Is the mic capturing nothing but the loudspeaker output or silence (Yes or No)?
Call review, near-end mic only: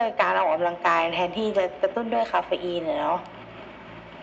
Yes